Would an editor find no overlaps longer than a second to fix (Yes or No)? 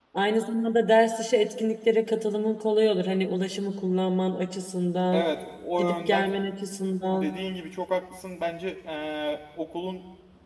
Yes